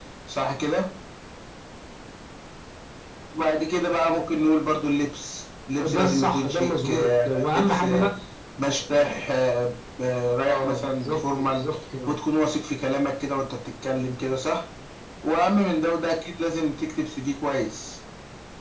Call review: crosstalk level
present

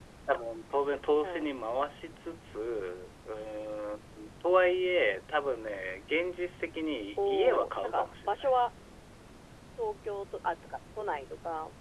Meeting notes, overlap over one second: present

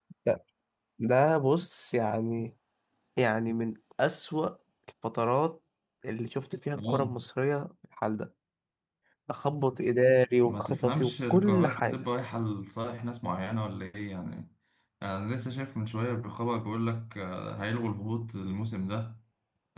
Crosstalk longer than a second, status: present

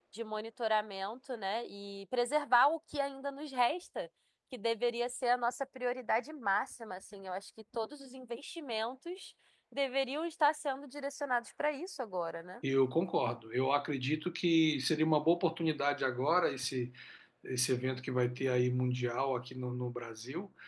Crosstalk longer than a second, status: none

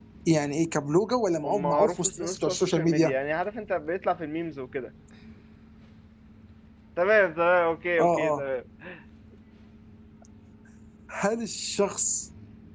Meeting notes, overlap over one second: present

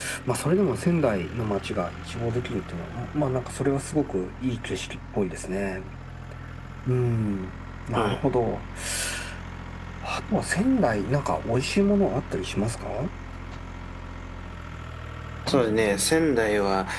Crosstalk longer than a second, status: none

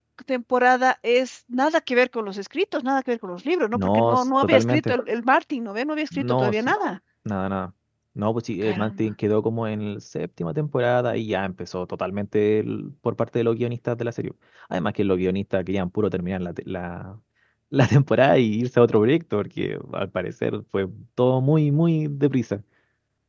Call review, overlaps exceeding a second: present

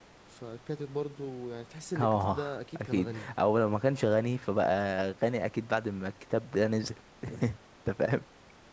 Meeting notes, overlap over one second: none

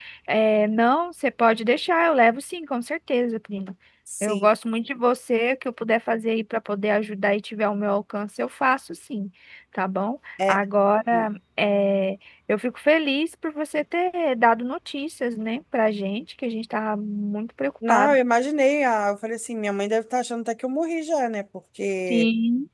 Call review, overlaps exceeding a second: none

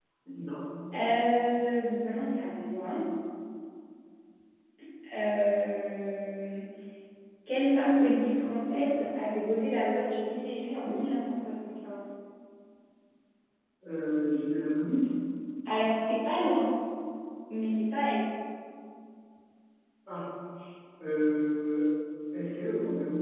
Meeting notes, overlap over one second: none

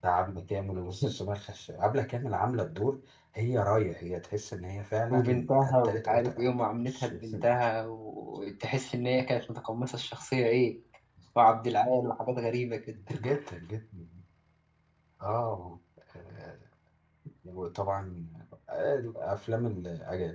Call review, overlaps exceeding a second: present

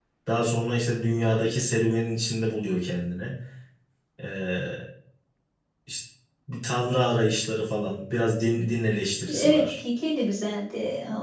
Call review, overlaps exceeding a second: none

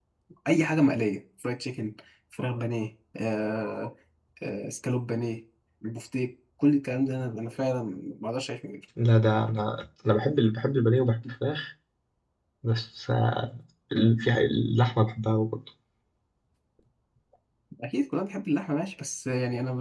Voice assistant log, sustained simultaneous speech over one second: none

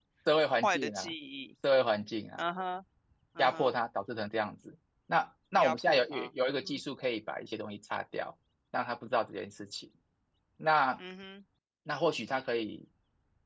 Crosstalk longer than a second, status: present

